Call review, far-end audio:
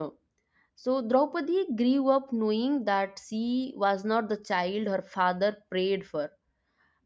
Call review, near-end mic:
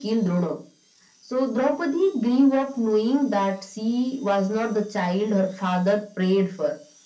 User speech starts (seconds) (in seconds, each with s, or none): none